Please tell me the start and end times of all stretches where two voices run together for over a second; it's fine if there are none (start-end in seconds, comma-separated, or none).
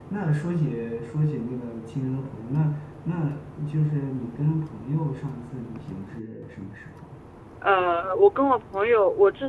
none